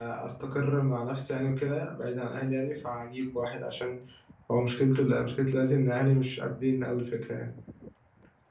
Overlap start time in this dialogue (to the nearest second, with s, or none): none